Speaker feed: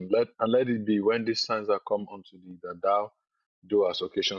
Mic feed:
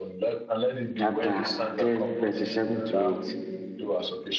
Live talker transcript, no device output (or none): chapter 10, verses 7 to 8.